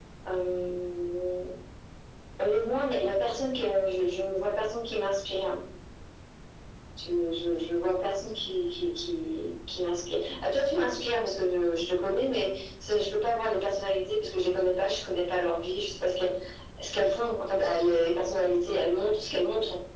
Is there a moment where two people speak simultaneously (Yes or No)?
No